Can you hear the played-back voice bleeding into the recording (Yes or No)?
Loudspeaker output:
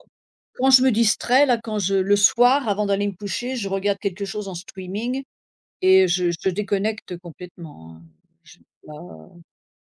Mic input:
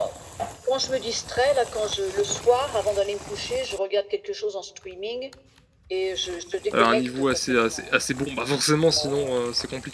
Yes